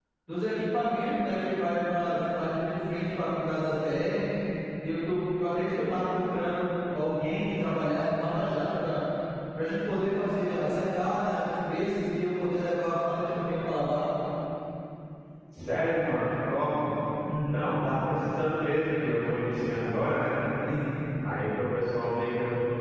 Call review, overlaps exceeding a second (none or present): none